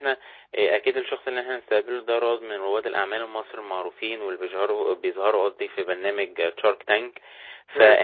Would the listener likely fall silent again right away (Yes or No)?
Yes